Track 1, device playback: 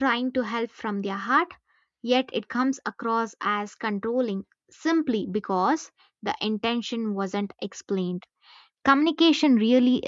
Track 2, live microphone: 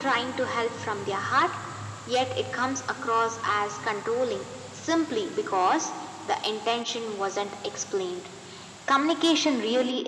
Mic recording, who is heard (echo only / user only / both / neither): echo only